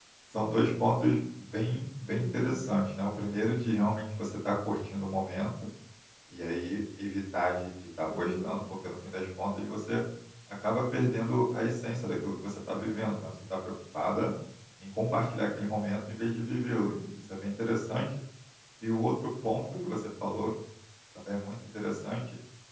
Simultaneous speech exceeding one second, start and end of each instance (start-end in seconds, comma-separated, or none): none